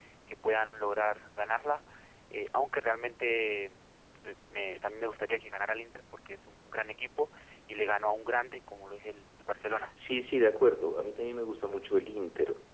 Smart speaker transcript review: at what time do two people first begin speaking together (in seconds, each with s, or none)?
none